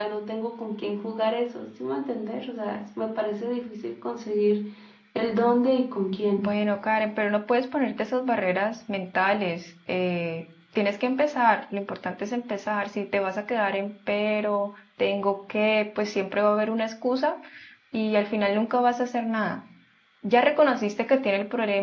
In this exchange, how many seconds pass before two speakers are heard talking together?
none

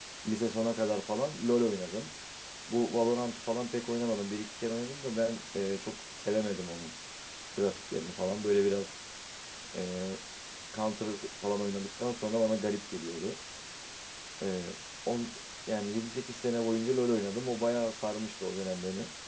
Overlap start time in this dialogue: none

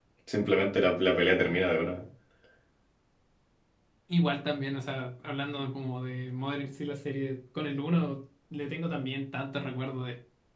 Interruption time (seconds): none

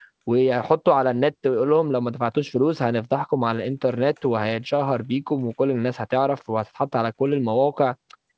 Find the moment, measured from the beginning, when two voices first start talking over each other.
none

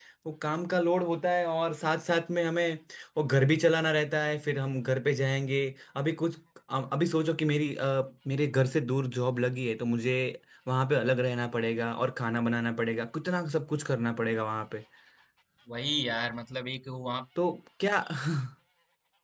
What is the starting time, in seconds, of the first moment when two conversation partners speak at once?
none

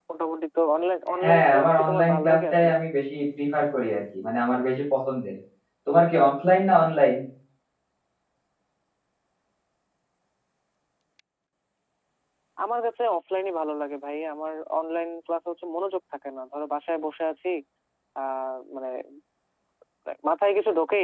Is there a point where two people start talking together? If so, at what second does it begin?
1.2 s

